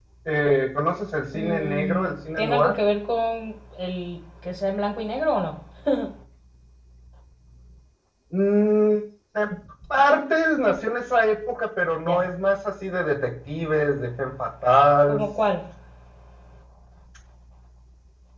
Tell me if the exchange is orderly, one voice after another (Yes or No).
No